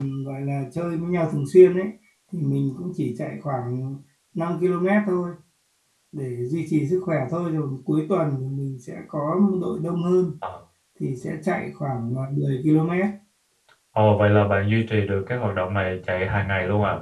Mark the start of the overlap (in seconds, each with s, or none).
none